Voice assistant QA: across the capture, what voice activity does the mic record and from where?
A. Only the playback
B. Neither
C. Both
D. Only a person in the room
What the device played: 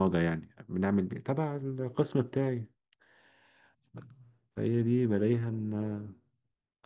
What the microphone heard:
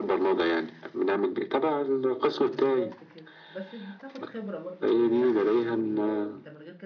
C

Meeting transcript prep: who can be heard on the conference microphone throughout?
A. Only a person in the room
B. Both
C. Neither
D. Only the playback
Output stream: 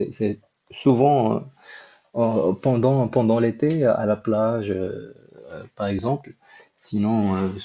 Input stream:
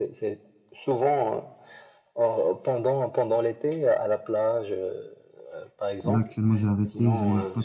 B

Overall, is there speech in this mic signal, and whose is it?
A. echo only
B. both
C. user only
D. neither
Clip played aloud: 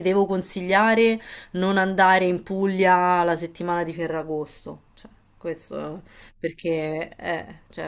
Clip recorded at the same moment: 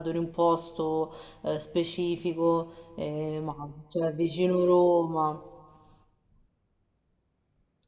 C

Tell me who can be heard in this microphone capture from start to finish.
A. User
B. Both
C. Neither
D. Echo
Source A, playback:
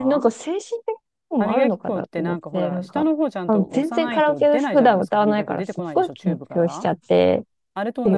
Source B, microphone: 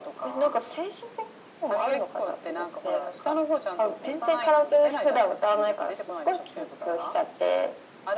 D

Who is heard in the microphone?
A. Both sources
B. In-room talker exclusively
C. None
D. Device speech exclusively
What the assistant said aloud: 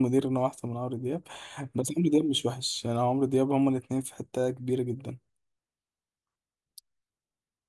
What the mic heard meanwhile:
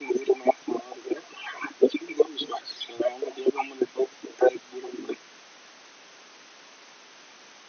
D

